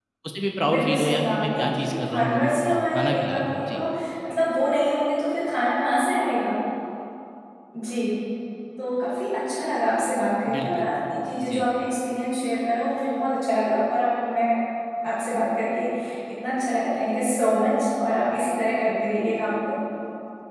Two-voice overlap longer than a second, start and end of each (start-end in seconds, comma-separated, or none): 0.7-3.8